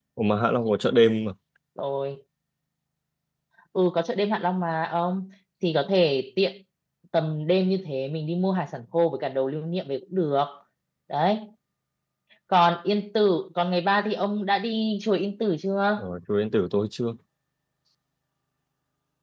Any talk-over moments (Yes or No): No